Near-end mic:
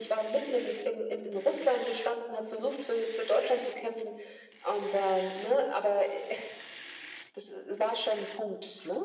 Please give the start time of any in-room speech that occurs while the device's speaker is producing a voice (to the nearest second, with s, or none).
none